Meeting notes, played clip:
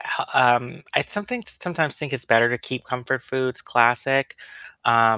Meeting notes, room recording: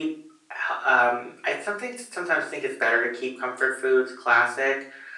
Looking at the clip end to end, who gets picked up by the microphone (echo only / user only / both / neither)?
echo only